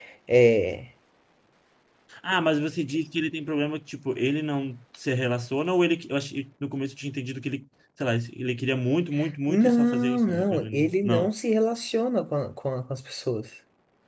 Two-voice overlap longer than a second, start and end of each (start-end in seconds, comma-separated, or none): 9.5-11.3